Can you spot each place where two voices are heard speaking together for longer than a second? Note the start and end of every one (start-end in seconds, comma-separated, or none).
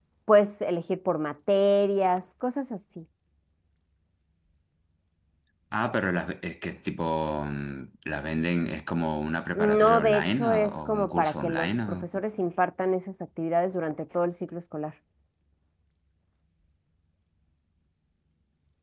9.6-12.1